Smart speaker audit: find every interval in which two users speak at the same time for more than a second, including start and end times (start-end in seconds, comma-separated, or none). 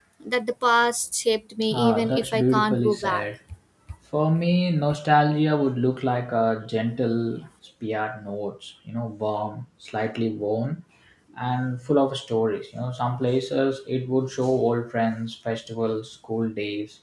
1.7-3.2